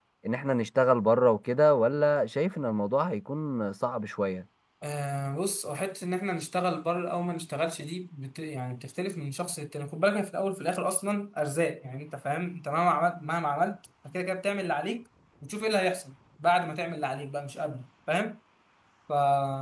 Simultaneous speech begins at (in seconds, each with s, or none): none